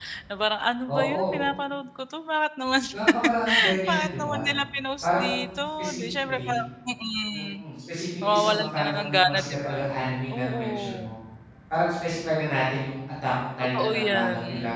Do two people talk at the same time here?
Yes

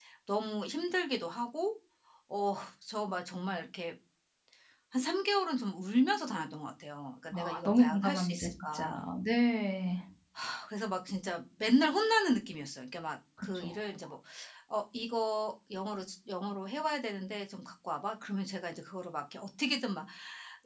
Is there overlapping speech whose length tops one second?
Yes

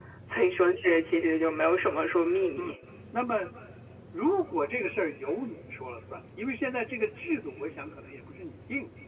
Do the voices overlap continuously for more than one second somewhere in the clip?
No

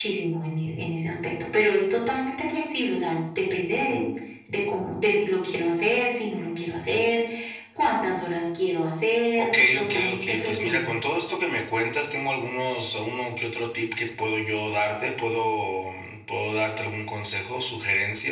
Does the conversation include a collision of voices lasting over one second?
Yes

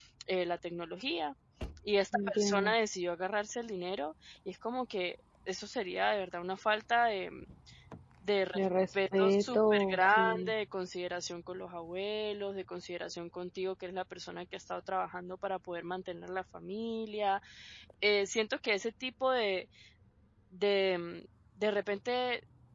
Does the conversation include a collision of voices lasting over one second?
Yes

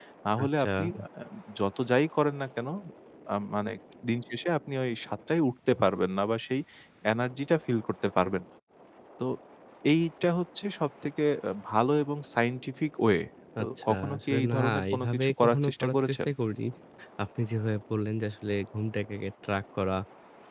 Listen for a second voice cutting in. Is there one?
Yes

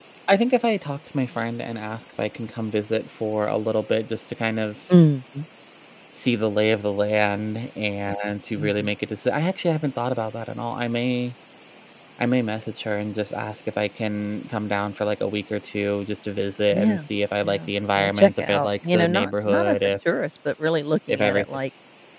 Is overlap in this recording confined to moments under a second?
No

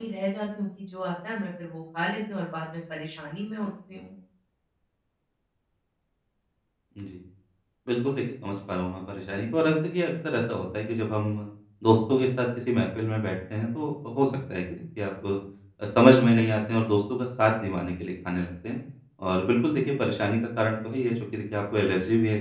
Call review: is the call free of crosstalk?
Yes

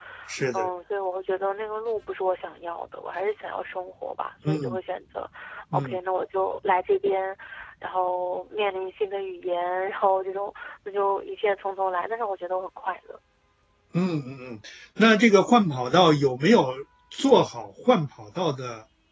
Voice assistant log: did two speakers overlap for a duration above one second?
No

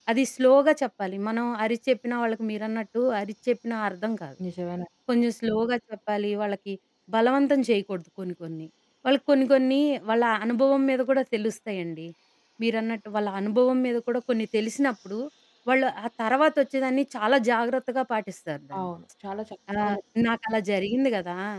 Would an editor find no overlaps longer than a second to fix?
Yes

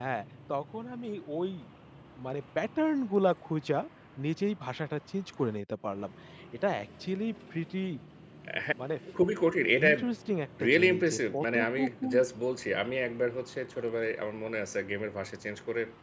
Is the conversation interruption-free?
No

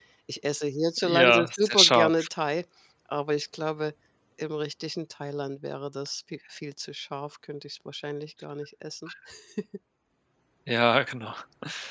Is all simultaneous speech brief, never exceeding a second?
No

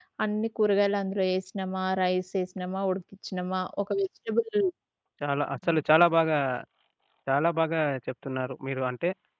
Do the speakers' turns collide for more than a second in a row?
No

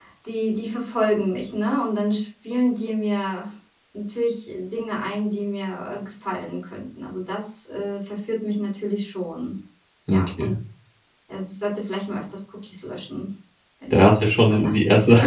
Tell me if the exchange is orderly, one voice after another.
No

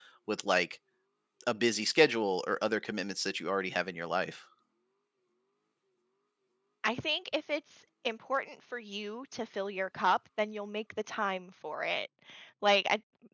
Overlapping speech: No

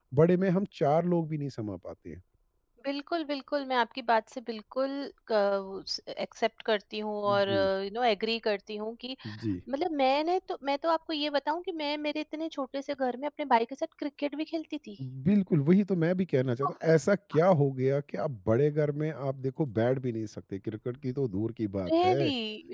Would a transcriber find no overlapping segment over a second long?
Yes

